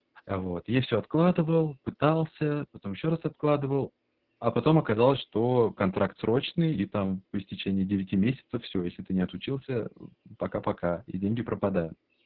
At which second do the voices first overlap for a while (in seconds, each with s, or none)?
none